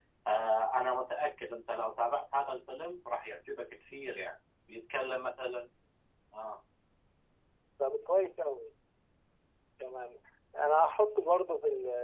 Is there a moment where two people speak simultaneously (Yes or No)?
No